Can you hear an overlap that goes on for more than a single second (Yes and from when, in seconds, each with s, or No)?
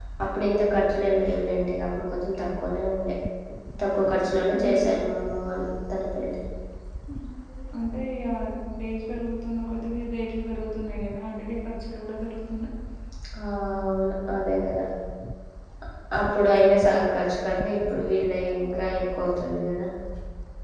No